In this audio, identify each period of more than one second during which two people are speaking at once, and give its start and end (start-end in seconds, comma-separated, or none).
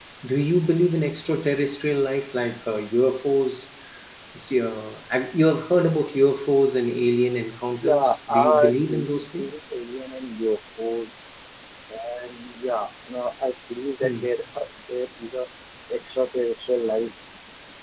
7.8-9.4